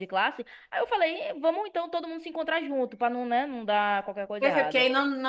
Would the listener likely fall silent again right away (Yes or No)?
No